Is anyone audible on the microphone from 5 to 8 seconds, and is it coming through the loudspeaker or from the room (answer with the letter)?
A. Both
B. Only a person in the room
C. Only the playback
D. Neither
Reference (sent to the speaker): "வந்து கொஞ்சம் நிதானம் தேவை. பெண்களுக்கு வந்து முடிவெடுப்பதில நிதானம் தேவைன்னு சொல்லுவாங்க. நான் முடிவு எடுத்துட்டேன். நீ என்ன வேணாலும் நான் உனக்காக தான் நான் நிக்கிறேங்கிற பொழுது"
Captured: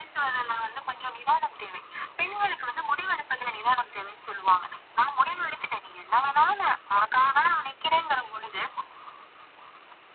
C